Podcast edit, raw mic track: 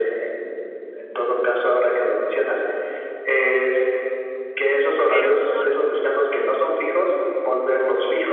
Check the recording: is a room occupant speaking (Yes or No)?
Yes